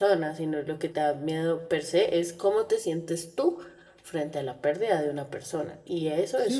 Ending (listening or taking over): taking over